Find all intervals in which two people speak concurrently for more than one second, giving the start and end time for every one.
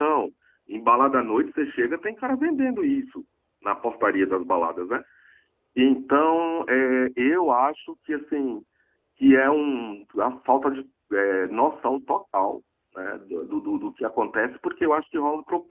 none

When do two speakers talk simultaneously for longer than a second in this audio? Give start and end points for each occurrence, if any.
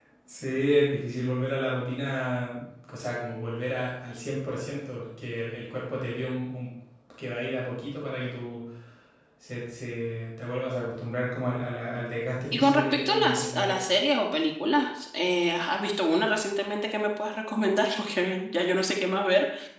12.5-13.8

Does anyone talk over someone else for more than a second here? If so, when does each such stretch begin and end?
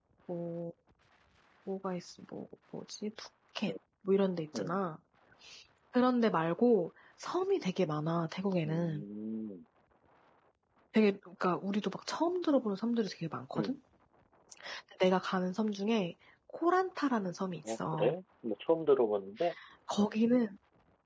none

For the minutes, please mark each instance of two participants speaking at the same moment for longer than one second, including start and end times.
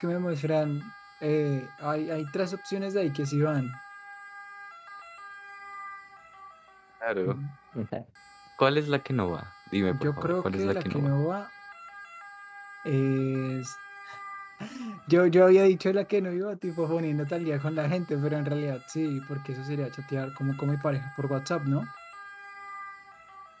9.9-11.1

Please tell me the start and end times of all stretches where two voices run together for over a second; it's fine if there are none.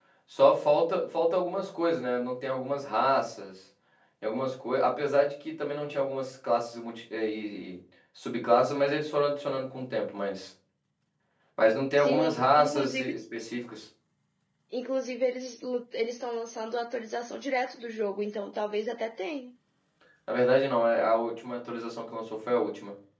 12.0-13.2

